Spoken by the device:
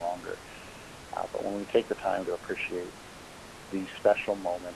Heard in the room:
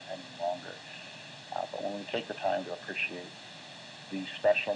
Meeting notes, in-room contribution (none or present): none